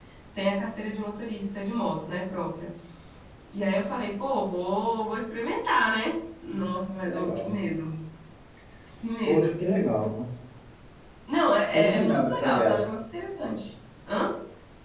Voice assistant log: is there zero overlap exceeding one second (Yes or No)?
No